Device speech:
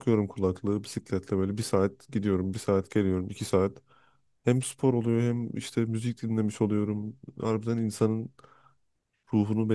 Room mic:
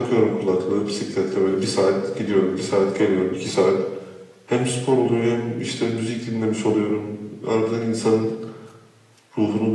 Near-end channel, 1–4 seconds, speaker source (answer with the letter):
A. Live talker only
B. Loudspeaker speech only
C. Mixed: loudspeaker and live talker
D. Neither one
B